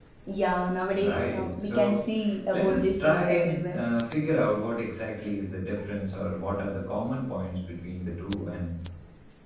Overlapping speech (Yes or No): Yes